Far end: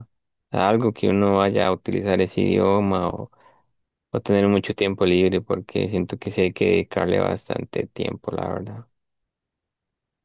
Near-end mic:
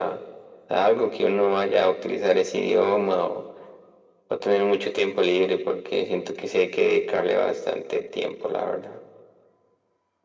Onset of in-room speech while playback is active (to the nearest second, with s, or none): none